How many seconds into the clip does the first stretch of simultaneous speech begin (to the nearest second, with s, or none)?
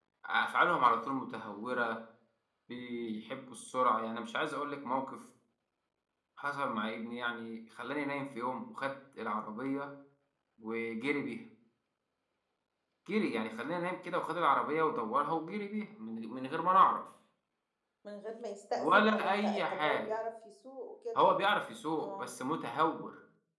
19 s